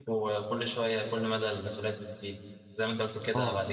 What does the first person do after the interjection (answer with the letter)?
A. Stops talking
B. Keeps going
B